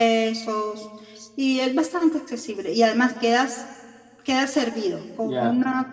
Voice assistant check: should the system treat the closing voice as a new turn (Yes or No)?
No